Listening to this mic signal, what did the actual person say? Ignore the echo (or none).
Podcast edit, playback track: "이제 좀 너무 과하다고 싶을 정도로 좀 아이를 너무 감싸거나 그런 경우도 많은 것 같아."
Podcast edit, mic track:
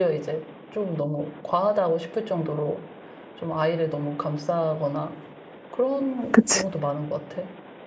그치?